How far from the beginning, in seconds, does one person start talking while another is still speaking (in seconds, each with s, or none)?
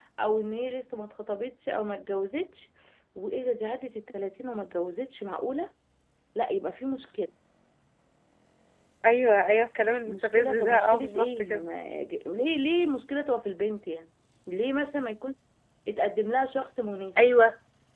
10.1 s